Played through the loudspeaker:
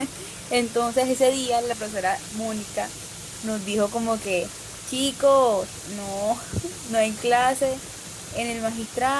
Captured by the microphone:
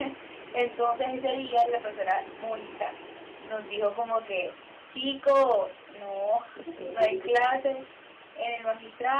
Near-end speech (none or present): present